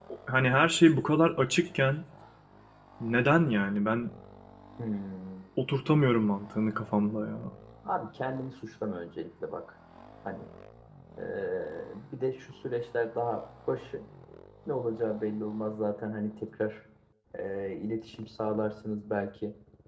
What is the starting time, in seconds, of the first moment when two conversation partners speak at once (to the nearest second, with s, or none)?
none